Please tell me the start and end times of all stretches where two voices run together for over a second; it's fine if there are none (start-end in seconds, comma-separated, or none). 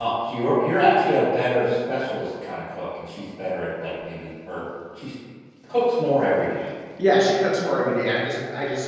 none